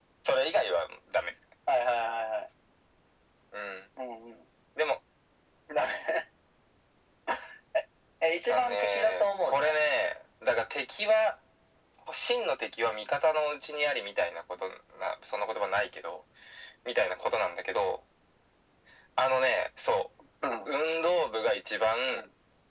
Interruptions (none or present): present